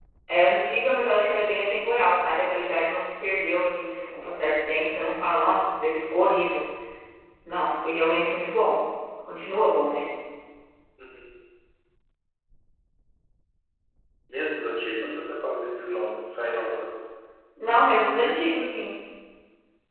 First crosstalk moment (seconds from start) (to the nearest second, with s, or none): none